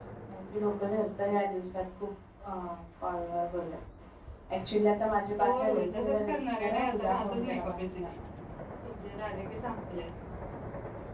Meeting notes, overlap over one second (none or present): present